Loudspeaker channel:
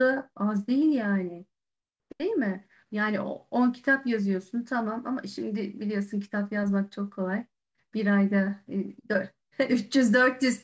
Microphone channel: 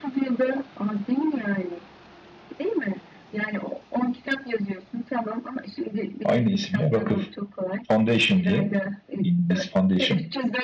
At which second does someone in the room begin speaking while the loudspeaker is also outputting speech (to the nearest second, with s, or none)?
6 s